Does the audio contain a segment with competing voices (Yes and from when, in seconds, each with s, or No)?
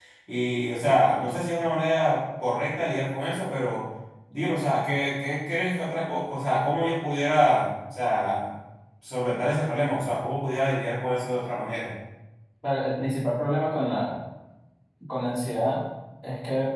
No